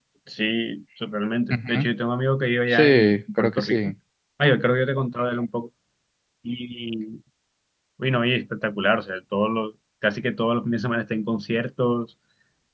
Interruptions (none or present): present